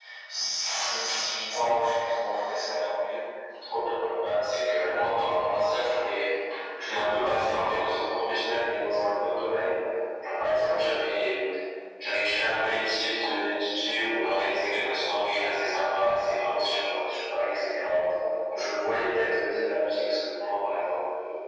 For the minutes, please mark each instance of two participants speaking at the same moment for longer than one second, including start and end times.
none

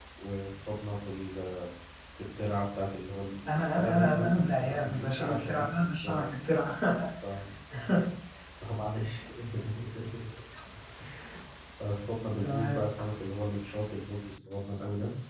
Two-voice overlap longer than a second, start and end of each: 3.5-6.4

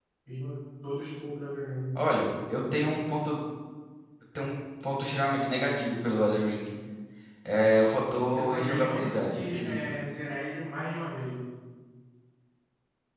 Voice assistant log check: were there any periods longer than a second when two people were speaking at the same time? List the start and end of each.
8.3-10.0

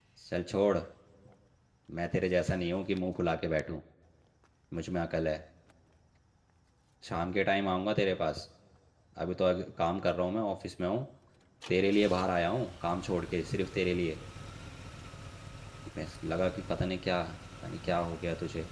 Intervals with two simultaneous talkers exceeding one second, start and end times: none

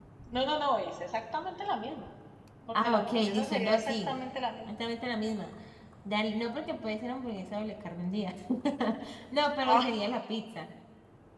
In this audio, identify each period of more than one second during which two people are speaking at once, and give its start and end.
2.8-4.1

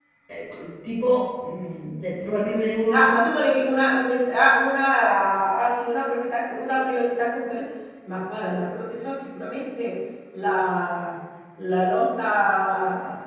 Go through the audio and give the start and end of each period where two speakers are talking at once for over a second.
none

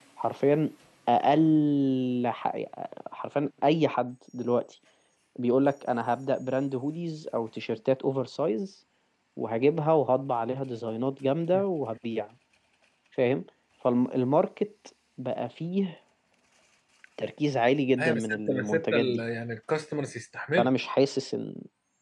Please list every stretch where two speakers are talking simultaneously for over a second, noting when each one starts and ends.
18.0-19.2

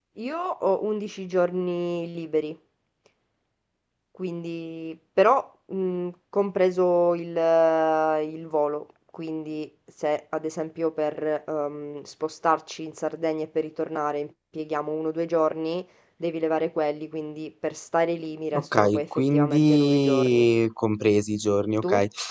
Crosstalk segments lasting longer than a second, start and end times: 18.5-20.5

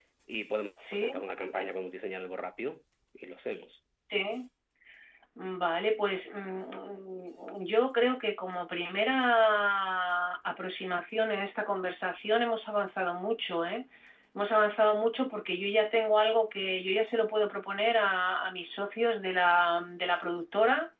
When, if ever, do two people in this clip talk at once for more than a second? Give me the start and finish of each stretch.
none

